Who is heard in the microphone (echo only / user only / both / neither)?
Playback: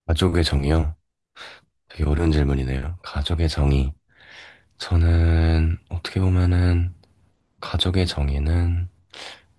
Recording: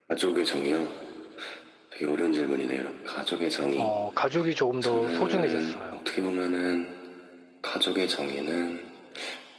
both